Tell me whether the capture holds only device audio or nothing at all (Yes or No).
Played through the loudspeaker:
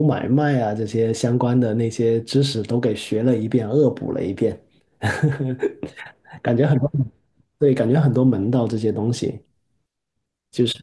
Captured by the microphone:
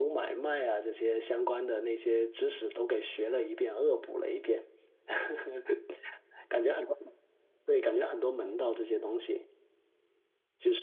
Yes